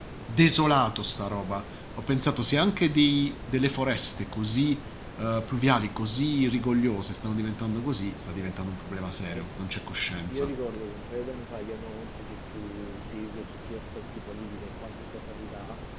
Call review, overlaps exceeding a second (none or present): none